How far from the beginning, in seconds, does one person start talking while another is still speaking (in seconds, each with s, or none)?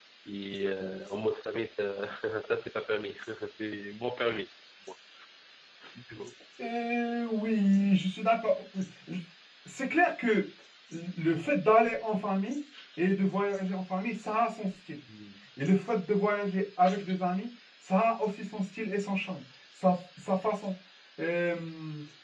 none